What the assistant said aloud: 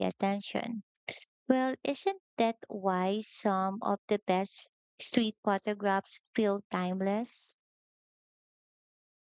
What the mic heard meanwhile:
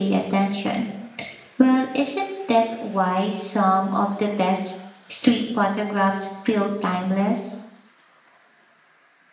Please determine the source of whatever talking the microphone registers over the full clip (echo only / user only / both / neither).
echo only